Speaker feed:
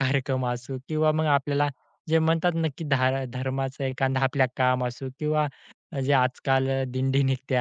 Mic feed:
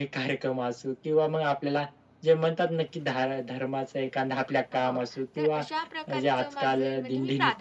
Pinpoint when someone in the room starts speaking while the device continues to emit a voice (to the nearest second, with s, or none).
5 s